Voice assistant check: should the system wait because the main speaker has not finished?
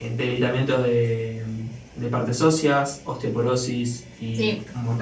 No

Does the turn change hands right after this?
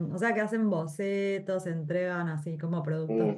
Yes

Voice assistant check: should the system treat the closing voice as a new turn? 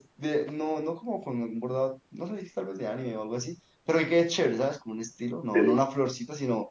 No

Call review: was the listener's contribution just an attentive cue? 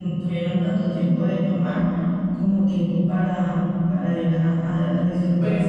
No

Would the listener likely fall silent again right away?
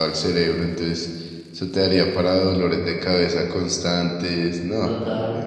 No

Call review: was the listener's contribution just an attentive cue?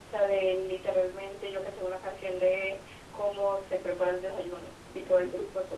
No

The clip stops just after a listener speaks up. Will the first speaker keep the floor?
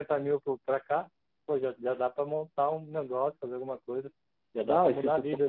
No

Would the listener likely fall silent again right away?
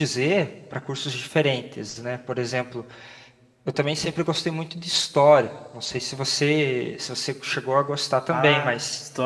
No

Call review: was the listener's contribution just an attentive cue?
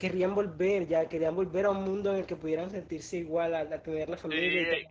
No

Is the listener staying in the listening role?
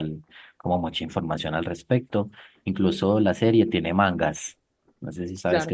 No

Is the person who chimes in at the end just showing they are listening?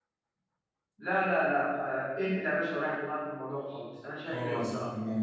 No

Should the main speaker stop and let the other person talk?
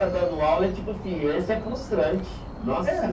Yes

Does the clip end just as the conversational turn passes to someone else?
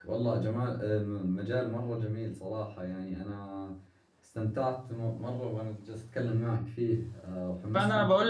Yes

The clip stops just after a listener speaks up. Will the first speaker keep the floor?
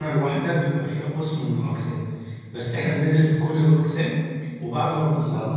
Yes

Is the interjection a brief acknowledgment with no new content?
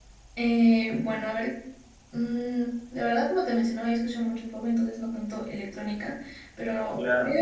Yes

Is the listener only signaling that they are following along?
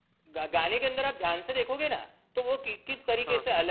Yes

